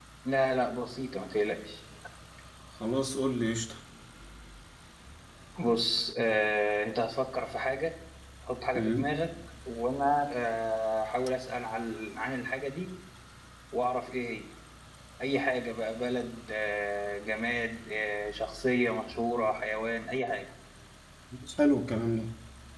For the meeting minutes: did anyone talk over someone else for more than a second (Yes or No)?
No